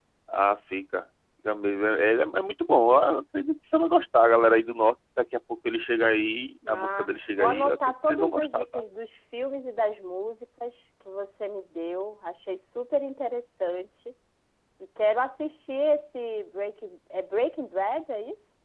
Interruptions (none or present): present